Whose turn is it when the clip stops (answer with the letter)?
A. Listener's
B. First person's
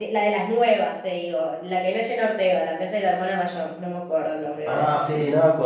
A